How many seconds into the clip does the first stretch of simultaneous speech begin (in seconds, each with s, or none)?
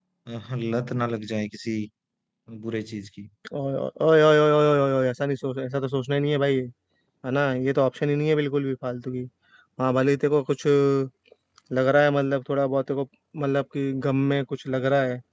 none